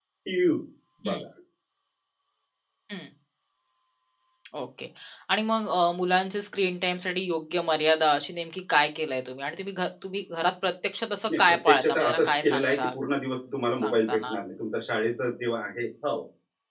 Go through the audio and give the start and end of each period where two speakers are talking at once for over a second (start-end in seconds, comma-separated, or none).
11.3-12.9